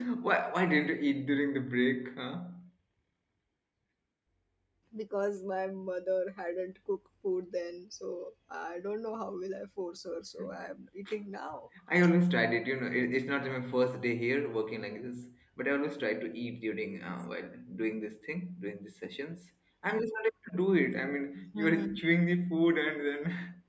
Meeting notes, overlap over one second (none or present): none